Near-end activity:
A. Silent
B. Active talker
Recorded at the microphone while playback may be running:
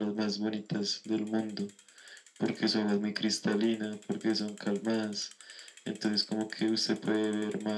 A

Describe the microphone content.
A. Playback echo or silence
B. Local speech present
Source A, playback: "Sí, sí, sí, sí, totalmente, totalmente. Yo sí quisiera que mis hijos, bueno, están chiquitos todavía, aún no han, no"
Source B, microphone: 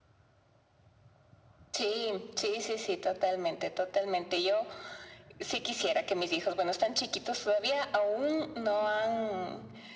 A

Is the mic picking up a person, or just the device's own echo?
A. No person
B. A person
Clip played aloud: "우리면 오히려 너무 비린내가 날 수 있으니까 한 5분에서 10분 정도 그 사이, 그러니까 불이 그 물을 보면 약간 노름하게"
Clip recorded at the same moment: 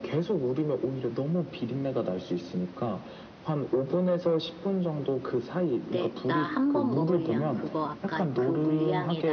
B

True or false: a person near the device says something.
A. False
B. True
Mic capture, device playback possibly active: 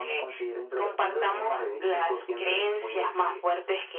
A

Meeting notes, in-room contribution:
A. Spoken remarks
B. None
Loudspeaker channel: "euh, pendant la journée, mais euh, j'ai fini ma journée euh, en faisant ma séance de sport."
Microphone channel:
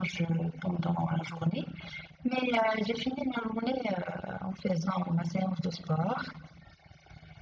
B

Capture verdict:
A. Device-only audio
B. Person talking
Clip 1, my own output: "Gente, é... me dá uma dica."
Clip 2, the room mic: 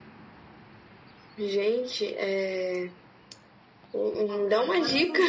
B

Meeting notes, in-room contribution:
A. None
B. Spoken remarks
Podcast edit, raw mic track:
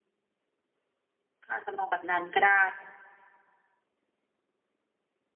B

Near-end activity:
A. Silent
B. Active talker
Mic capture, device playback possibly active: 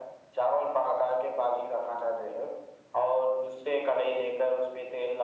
A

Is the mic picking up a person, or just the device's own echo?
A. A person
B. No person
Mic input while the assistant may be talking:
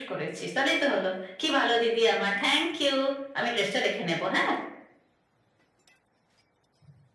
B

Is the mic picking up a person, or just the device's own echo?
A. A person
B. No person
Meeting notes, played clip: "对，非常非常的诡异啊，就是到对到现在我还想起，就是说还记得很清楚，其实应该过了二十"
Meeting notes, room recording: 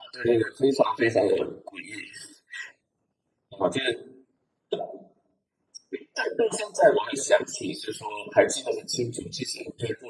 B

